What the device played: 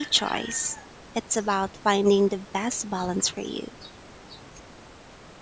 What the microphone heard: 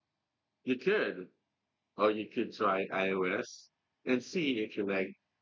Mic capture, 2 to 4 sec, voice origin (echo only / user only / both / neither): user only